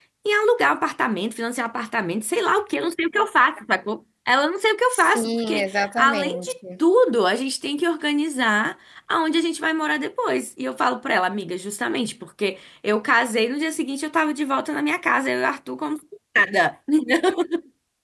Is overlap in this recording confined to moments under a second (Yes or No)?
No